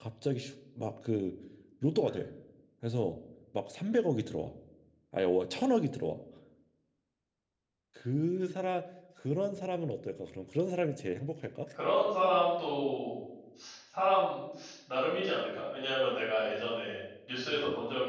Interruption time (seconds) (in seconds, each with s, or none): none